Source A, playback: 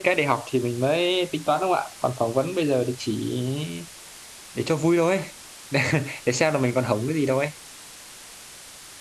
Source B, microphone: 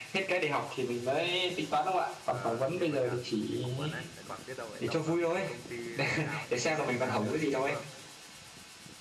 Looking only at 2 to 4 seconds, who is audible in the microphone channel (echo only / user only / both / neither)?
both